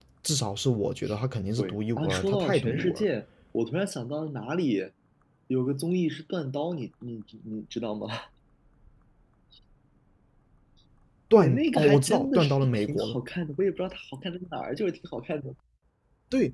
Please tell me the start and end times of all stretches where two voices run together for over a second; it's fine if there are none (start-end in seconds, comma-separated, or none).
1.6-3.0, 11.3-13.2